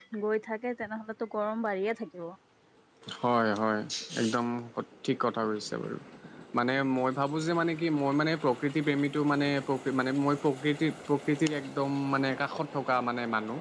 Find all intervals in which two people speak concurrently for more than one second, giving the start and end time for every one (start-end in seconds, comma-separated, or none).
none